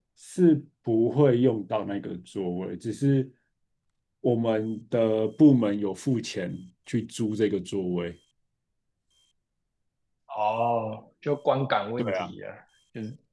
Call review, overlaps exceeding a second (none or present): none